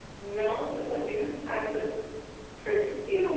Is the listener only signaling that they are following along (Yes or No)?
No